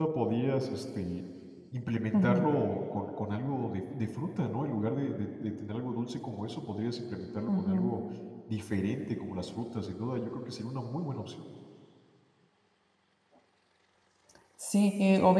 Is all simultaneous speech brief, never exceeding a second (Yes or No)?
Yes